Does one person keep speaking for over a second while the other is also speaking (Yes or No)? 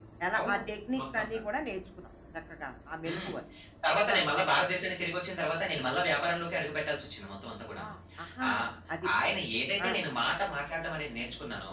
No